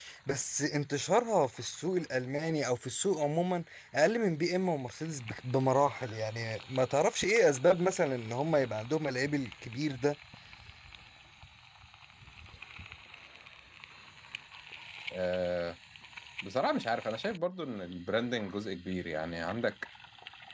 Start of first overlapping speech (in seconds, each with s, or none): none